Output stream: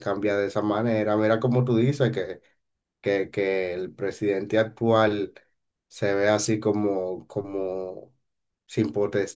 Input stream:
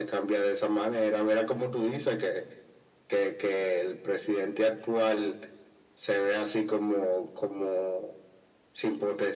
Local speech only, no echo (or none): none